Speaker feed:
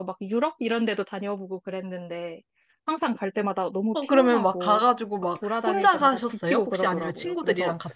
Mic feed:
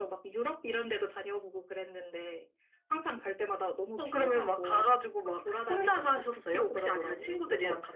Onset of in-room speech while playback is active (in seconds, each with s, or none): none